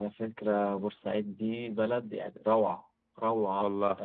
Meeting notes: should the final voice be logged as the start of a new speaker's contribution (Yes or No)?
No